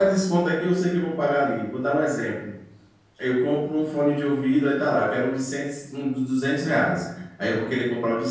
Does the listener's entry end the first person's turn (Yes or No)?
No